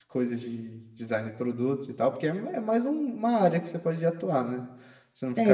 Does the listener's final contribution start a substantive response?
Yes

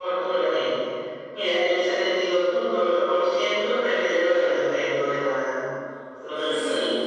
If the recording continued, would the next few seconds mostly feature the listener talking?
Yes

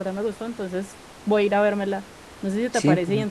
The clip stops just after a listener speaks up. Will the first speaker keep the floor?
Yes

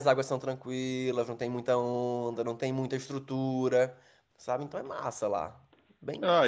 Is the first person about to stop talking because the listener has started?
Yes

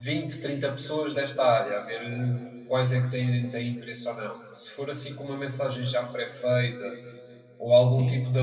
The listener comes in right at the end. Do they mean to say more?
No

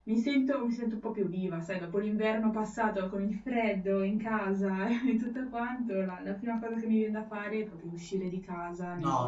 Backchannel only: No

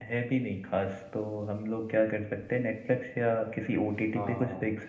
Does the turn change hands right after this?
Yes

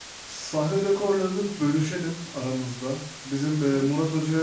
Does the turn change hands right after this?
No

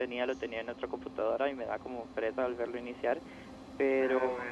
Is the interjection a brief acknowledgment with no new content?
Yes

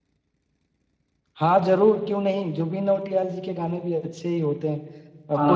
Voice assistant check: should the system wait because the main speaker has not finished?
No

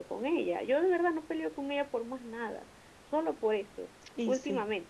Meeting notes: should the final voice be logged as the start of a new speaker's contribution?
No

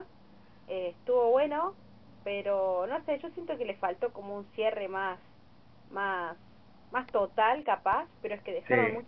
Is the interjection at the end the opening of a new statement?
No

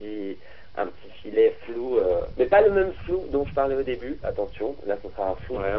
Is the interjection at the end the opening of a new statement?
No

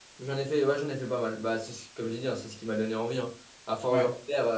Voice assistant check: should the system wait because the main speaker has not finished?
Yes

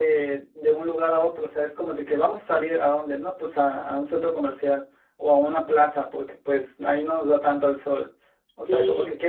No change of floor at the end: Yes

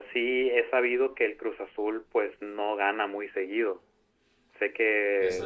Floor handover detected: No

